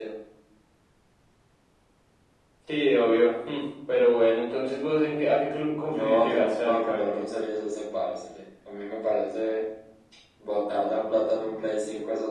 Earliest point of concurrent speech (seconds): 5.9 s

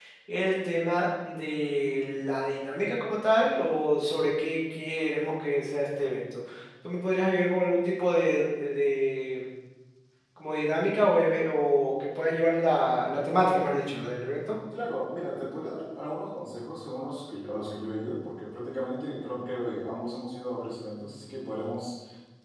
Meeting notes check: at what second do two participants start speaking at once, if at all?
none

